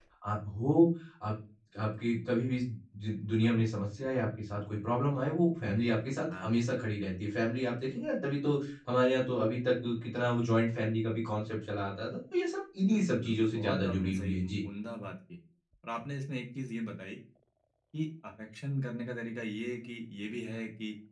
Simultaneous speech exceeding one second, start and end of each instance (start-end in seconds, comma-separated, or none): 12.9-14.3